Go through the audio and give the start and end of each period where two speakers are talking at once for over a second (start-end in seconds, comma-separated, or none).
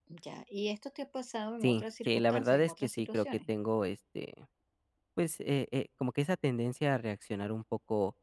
1.6-3.5